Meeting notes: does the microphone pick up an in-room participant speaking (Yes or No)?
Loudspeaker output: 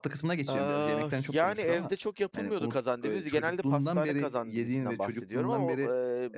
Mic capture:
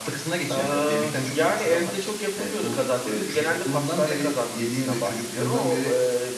No